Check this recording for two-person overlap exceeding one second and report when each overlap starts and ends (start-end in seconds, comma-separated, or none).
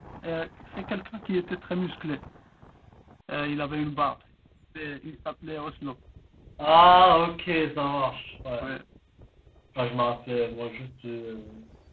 none